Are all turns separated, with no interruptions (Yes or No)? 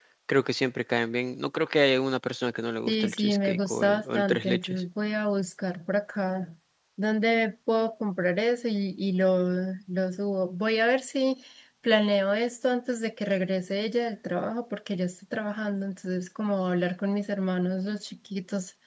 No